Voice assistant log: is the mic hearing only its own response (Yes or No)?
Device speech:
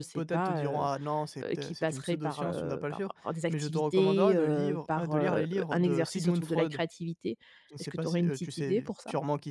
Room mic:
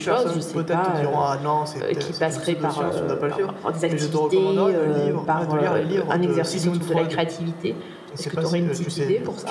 No